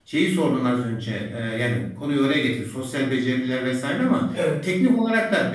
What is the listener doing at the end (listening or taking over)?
listening